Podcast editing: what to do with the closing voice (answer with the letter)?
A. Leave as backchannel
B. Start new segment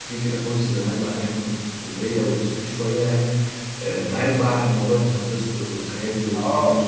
B